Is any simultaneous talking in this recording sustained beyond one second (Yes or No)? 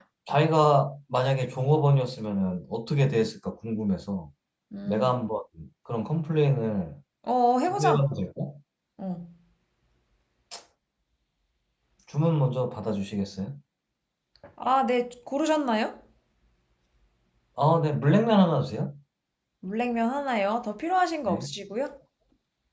No